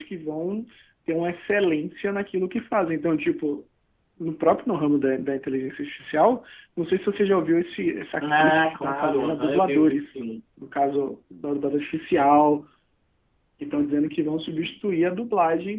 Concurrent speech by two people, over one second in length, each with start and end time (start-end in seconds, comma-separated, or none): 8.2-10.2